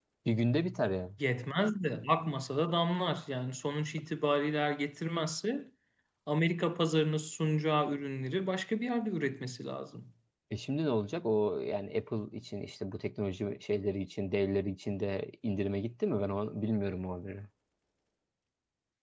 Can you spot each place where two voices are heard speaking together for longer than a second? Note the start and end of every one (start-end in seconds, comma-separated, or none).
none